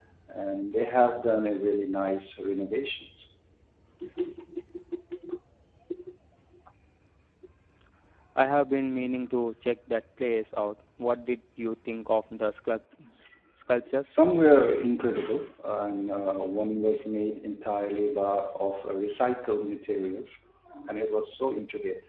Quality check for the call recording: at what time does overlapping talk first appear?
none

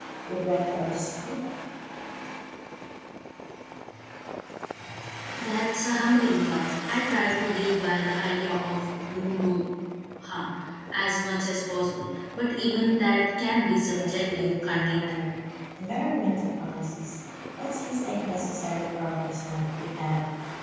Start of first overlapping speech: 13.9 s

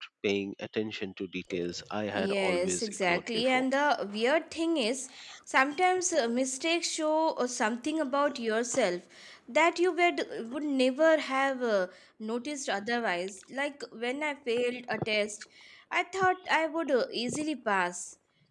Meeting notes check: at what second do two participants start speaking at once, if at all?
2.1 s

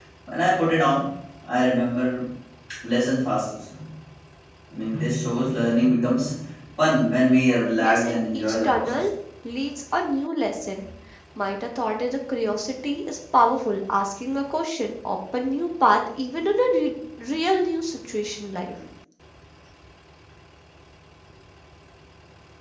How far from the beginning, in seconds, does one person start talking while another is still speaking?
7.8 s

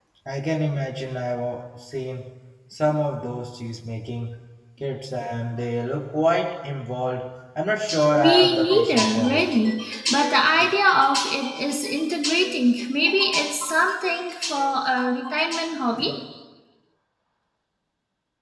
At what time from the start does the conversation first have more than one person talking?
8.2 s

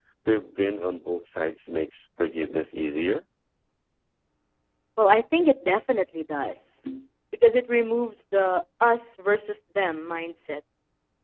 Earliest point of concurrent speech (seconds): none

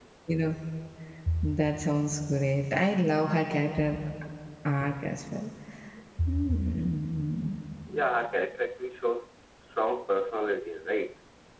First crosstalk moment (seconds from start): none

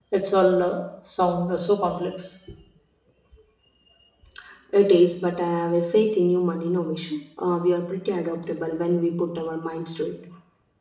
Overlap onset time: none

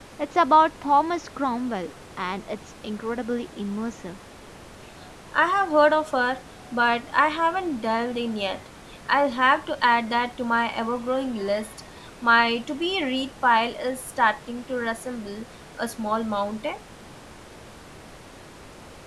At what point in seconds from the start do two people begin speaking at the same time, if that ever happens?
none

